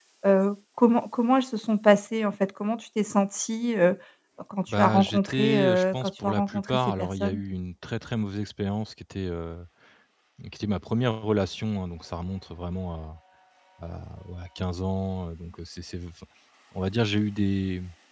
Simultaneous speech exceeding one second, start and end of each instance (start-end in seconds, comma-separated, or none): 4.7-7.4